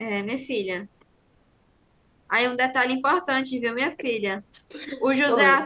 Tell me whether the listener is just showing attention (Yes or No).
Yes